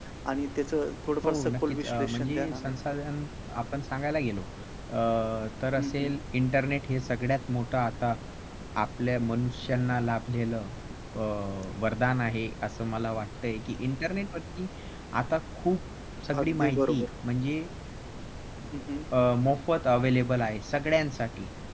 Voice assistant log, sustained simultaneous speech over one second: present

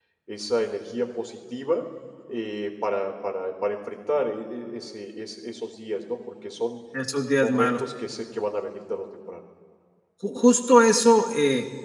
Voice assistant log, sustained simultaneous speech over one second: none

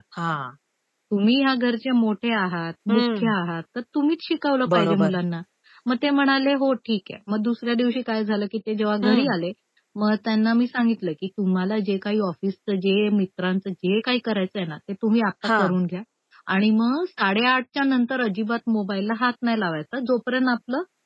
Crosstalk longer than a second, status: none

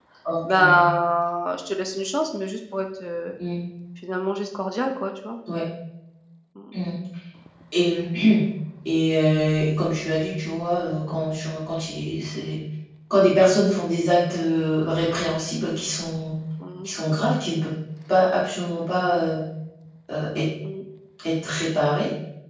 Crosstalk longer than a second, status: none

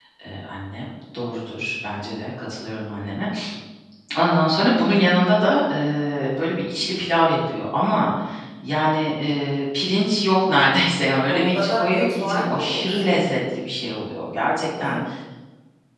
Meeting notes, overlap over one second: present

